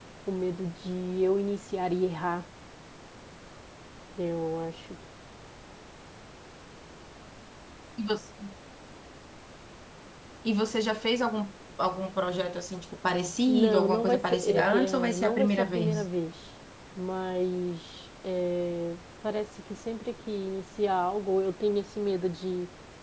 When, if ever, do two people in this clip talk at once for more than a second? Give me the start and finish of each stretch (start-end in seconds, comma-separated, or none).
13.5-16.1